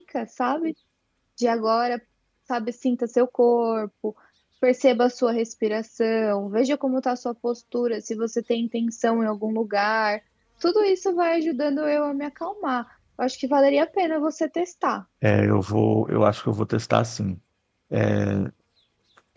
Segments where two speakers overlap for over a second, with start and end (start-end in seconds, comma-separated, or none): none